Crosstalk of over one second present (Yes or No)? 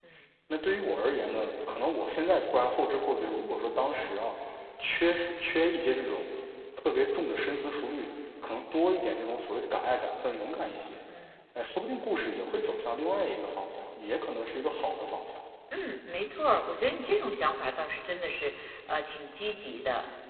No